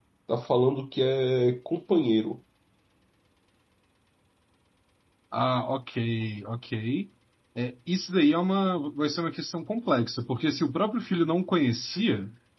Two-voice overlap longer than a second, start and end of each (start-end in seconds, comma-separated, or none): none